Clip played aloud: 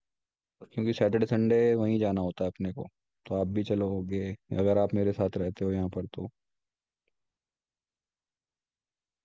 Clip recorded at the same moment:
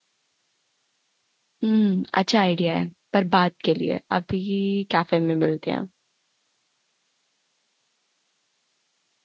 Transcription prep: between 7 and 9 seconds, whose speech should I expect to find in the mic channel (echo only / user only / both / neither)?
neither